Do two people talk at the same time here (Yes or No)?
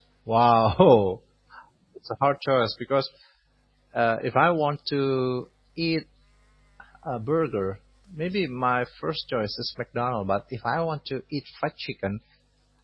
No